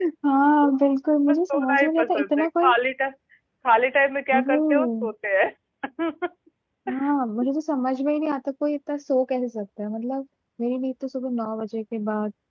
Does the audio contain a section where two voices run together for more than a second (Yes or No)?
Yes